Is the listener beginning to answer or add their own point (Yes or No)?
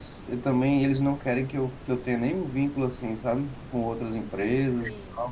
No